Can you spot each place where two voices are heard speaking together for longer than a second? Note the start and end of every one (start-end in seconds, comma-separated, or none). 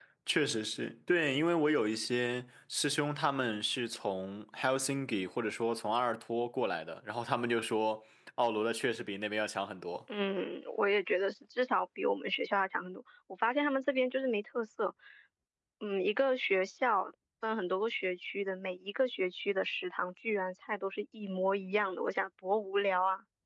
none